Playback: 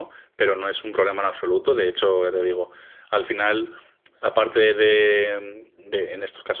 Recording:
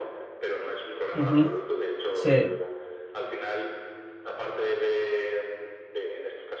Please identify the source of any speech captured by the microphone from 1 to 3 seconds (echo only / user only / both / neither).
both